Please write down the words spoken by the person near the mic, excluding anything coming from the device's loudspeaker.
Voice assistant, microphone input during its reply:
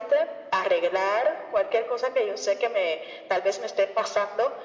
none

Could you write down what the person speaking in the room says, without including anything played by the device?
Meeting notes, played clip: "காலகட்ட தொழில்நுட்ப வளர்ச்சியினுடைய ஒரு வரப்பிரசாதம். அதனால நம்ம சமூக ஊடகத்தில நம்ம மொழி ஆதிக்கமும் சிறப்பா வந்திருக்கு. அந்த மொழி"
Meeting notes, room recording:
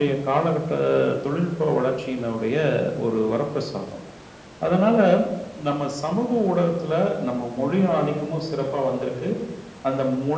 none

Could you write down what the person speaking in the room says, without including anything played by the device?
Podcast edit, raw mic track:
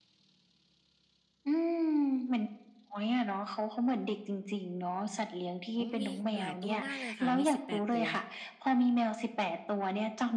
อ๋อมีหลายตัวมากเลยค่ะมี18ตัว

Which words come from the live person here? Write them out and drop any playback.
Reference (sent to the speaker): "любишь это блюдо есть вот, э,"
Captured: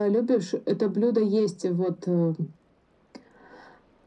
none

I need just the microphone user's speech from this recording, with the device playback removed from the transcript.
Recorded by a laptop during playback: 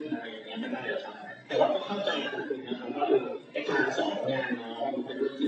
none

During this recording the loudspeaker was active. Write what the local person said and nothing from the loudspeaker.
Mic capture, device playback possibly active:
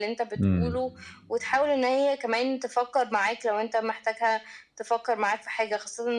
إمم،

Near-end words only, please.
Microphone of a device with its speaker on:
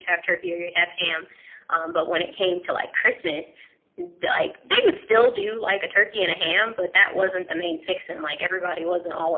none

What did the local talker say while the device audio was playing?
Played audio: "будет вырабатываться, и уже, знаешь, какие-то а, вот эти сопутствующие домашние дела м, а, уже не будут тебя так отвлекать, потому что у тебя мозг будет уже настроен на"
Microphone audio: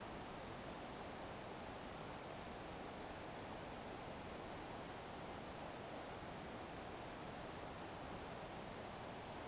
none

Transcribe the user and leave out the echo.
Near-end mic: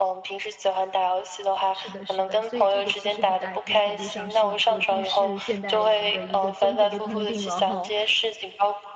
是的，是的，所以这个其实很大一部分程度上是一个都市现代人的一个综合的通病了哈，

